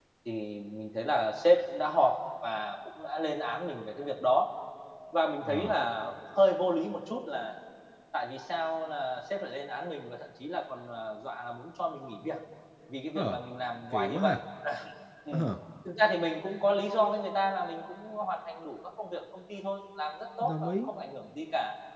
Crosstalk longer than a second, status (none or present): none